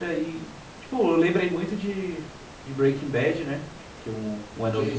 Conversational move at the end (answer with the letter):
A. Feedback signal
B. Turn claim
A